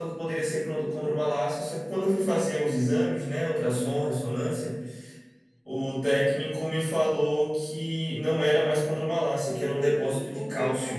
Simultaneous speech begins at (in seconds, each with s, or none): 9.4 s